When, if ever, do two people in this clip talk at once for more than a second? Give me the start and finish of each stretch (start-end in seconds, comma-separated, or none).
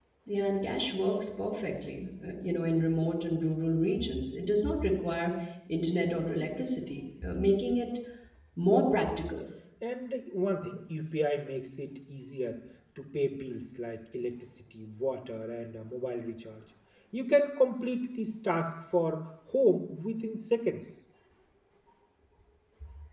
none